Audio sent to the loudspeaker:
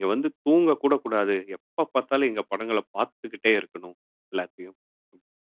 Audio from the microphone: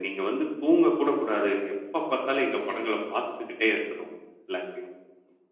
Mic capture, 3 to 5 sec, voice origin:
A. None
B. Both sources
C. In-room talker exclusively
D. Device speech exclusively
D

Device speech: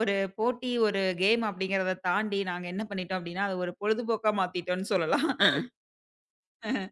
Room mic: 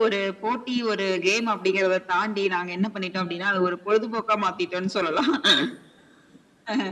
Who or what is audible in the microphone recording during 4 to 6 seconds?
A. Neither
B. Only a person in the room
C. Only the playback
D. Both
C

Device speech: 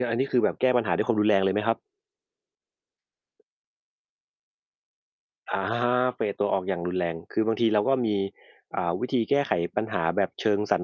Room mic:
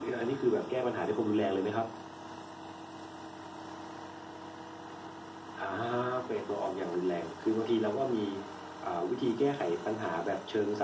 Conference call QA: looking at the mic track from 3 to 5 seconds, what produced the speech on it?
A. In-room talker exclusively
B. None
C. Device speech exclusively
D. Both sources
B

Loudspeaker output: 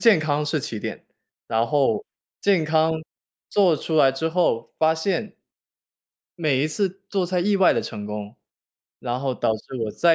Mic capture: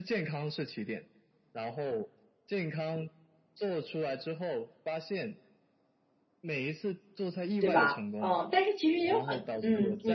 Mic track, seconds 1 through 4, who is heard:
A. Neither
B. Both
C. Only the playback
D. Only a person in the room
C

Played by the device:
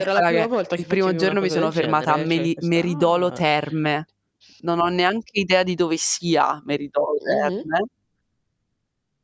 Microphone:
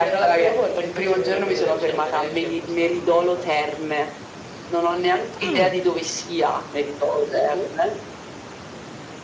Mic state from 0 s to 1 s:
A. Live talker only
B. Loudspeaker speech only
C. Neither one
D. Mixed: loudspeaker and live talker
B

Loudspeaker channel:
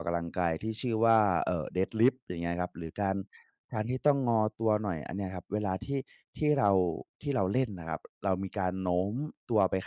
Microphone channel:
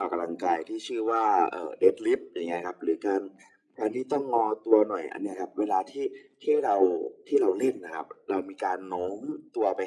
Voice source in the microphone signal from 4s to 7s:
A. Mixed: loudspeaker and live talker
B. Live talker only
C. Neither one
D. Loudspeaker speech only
D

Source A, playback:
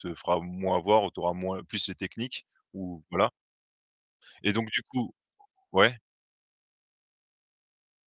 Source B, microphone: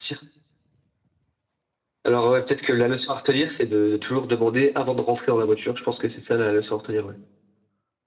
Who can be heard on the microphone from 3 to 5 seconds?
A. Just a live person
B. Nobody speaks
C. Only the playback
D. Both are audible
A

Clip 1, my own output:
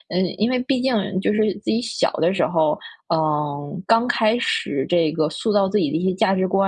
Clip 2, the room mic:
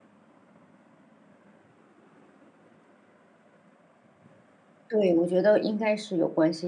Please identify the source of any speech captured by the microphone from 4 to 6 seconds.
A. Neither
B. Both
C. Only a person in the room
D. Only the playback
C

